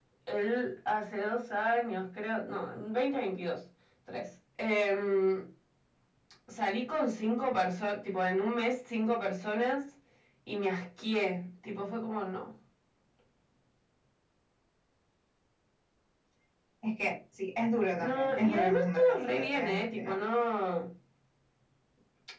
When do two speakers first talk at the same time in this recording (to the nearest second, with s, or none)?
18 s